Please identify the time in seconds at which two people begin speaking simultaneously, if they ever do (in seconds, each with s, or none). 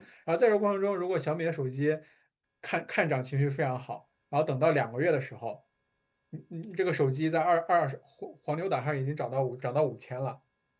none